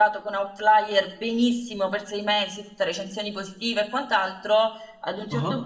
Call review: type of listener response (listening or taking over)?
listening